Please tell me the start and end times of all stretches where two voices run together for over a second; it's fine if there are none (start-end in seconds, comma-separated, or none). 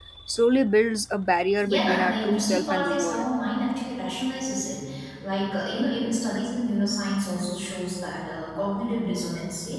1.7-3.2